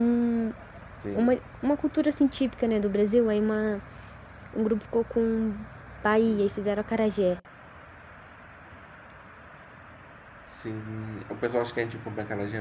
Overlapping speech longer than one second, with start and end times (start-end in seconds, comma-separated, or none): none